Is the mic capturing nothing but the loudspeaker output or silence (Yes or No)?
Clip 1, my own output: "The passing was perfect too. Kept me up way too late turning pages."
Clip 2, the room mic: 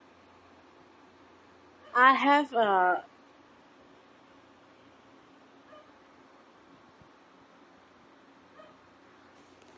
No